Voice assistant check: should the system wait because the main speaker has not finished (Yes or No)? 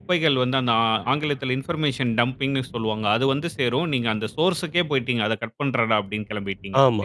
No